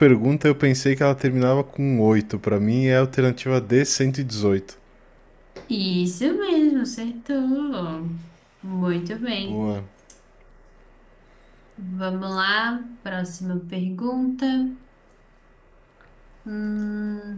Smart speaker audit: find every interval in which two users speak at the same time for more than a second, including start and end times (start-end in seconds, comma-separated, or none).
none